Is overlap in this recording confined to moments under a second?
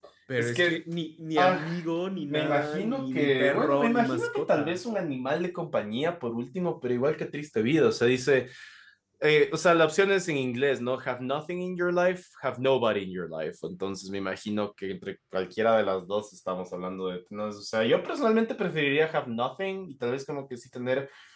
No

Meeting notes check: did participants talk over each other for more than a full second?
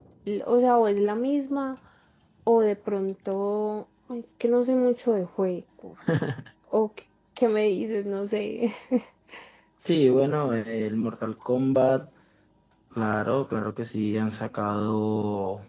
No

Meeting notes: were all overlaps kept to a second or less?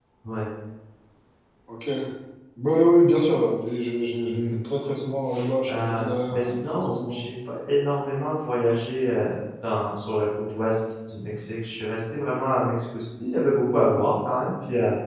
No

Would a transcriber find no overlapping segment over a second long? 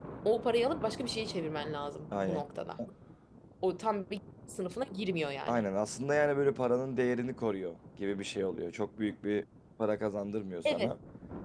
Yes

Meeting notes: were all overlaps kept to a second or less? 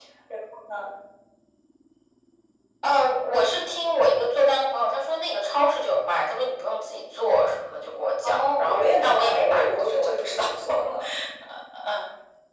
No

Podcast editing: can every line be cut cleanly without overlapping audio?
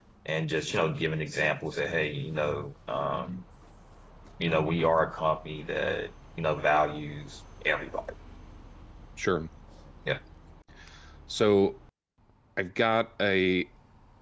Yes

